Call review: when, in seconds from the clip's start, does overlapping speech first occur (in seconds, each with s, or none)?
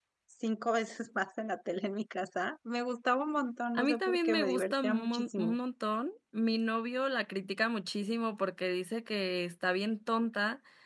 3.8 s